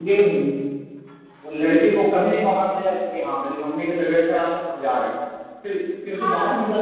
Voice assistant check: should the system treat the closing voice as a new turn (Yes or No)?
No